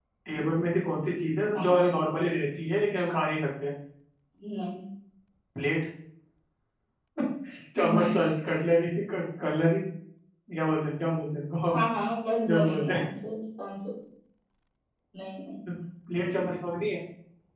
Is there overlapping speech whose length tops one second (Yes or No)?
No